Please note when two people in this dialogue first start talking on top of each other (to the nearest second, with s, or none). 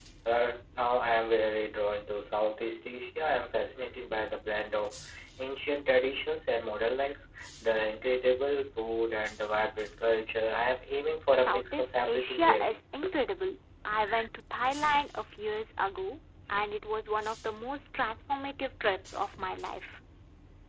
11 s